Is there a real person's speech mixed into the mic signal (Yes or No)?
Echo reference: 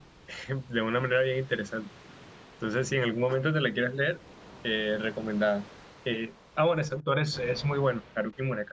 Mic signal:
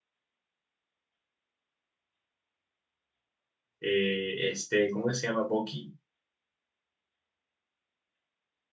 Yes